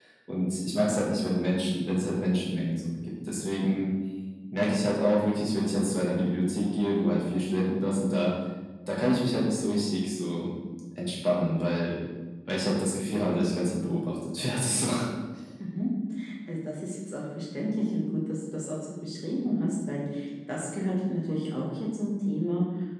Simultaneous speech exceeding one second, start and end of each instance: none

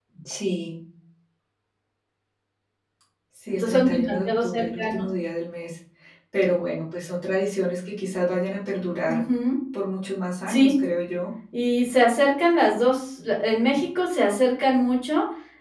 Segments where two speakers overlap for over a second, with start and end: 3.6-5.1

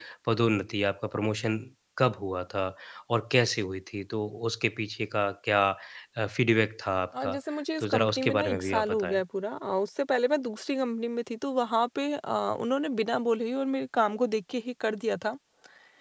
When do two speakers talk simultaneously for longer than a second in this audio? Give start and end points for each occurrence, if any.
7.8-9.2

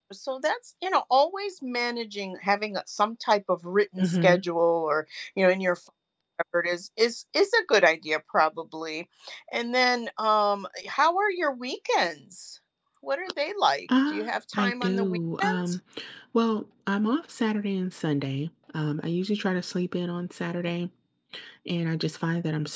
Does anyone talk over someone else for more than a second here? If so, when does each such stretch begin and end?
14.1-15.8

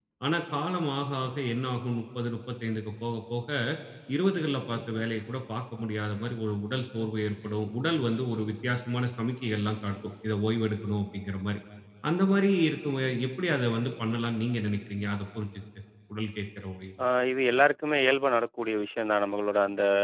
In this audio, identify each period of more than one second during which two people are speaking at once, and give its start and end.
none

